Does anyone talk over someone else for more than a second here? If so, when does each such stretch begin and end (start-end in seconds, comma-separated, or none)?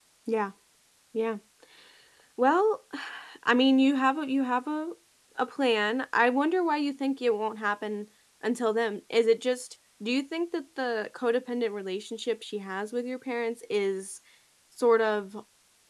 none